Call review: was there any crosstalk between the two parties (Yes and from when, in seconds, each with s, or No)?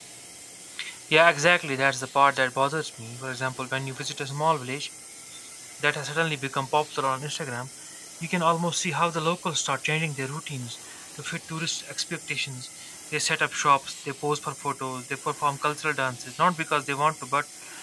No